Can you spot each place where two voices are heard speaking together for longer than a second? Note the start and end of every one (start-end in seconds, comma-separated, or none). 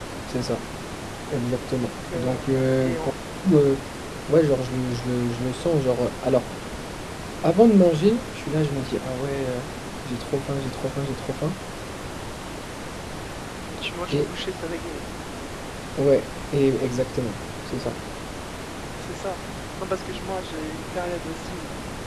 1.8-3.1